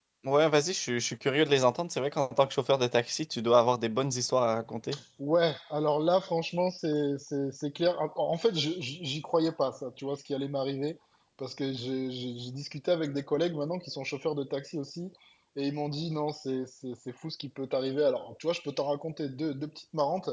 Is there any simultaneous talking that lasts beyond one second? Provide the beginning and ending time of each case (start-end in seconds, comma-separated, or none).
none